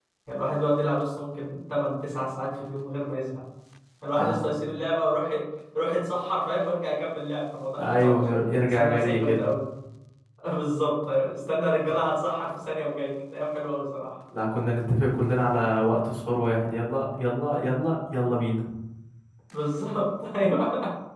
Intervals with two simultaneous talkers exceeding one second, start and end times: 7.8-9.5

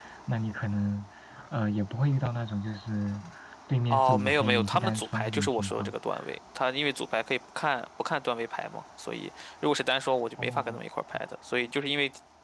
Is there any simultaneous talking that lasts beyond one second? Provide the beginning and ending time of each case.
3.9-5.9

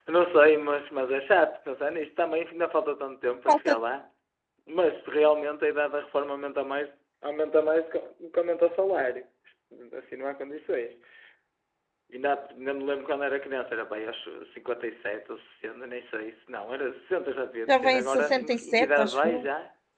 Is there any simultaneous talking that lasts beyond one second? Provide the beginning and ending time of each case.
17.7-19.4

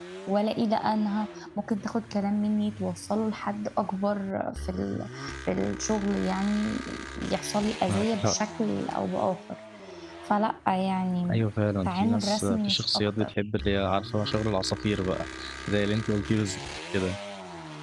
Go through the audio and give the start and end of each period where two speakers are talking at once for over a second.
11.8-13.3

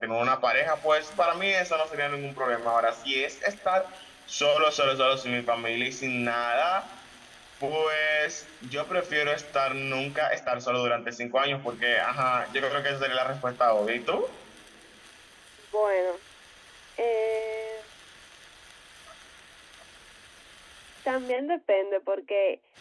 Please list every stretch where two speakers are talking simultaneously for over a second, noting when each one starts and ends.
none

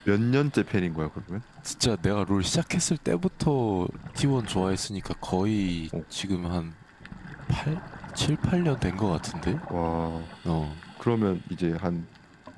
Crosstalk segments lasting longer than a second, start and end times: none

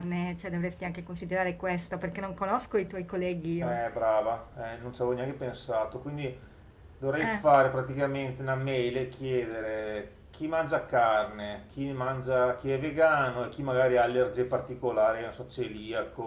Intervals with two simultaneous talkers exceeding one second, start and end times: none

